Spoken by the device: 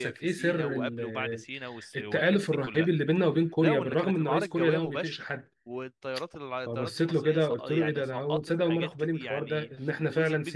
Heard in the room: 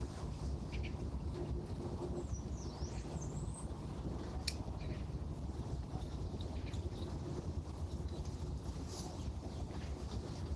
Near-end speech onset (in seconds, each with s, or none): none